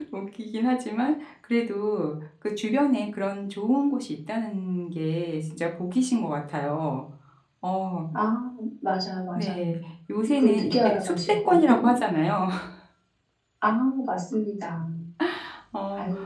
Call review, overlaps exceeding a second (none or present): present